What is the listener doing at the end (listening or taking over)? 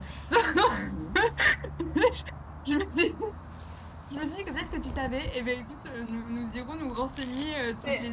taking over